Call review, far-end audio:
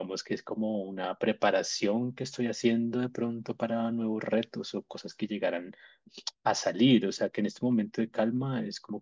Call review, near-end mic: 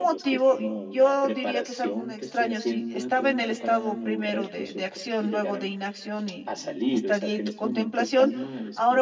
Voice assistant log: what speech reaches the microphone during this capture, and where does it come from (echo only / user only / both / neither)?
both